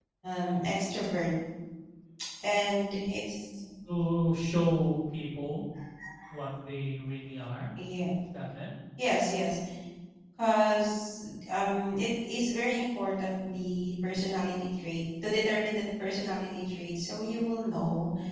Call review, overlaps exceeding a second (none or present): none